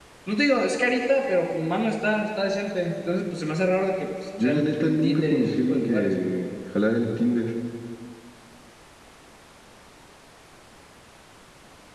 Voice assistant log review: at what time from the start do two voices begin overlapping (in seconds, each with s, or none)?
4.4 s